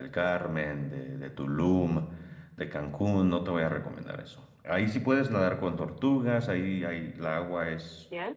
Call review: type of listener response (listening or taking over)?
listening